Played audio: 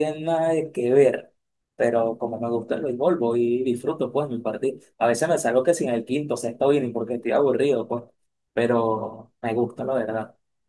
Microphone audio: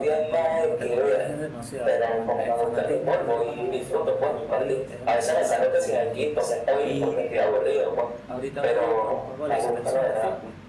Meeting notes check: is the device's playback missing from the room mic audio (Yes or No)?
No